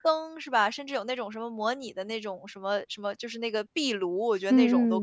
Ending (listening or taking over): taking over